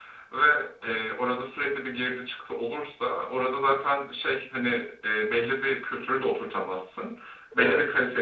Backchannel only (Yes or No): Yes